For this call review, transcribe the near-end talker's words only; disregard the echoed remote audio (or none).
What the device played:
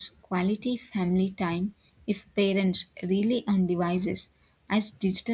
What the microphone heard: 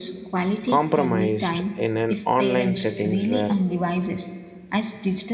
compromised in an online settings where